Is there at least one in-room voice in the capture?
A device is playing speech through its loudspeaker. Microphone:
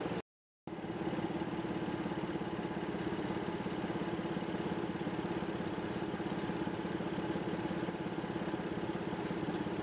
No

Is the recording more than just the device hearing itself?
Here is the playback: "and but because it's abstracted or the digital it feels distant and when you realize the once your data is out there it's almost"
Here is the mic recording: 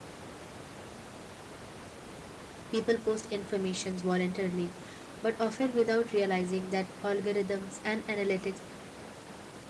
Yes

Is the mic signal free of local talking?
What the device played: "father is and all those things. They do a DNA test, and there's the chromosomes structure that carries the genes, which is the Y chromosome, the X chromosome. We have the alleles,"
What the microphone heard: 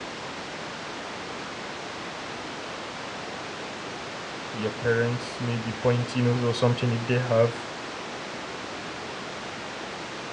No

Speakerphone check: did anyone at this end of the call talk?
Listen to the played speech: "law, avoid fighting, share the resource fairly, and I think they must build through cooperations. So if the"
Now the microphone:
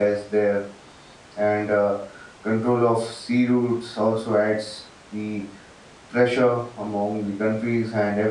Yes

